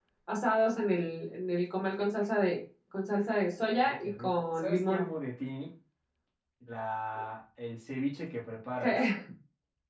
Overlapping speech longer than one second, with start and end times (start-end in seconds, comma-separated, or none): 3.7-5.1